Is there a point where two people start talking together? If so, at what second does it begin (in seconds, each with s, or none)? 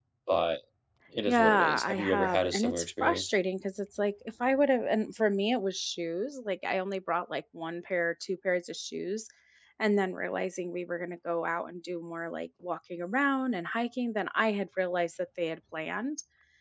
1.3 s